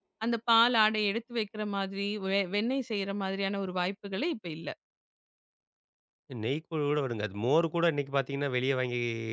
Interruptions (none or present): none